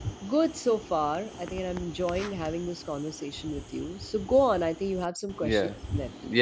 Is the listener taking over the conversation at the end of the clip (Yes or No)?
Yes